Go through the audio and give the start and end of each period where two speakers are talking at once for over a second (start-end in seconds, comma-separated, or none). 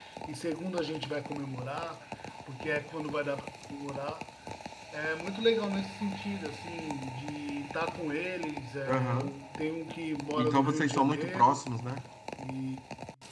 10.4-11.6